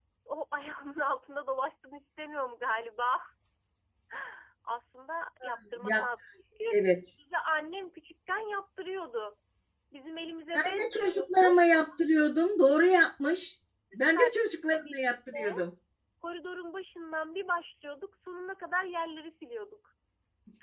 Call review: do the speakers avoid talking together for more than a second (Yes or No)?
No